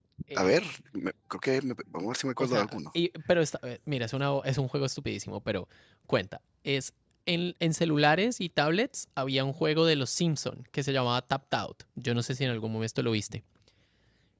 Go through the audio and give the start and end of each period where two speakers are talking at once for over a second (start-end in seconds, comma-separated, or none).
none